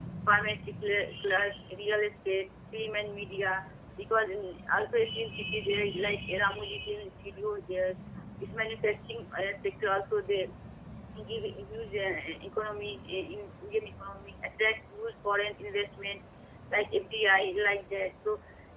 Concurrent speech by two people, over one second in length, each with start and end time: none

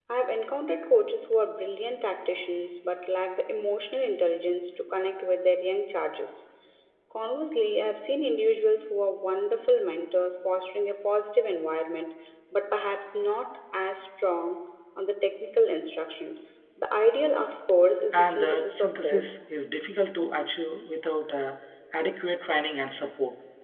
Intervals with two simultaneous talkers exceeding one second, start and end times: 18.1-19.3

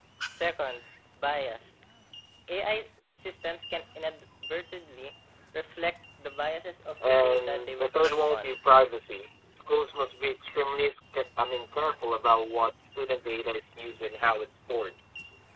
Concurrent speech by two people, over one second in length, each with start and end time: 7.0-8.6

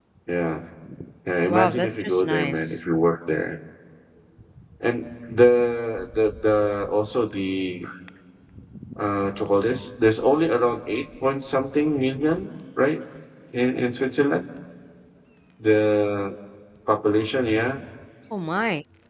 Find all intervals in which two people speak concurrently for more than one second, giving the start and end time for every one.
1.5-2.8

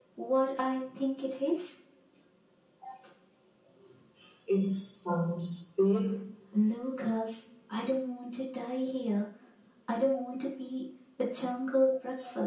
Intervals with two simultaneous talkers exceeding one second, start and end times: none

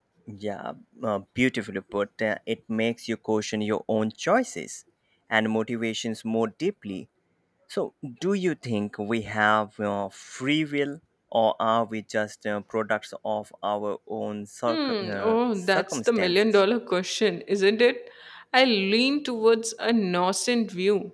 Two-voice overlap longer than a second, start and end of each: 14.7-16.5

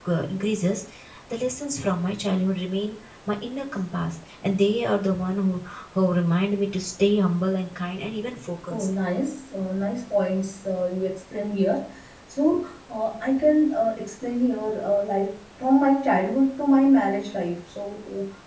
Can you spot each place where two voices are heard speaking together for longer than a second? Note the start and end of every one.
none

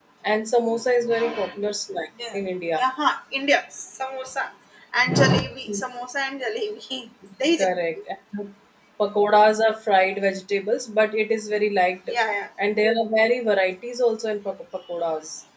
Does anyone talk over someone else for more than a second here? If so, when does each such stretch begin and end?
none

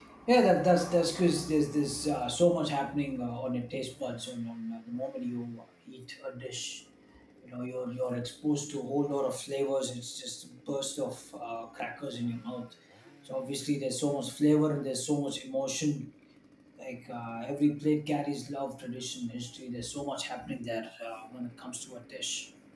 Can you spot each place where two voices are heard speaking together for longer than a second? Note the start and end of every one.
none

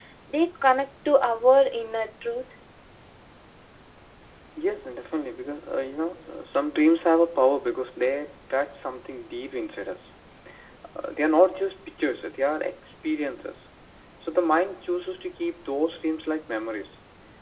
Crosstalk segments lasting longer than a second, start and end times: none

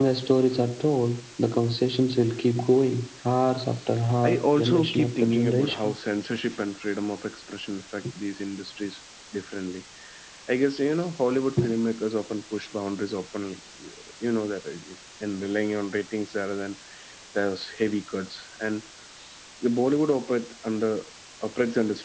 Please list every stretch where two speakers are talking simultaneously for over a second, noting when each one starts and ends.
4.3-5.9

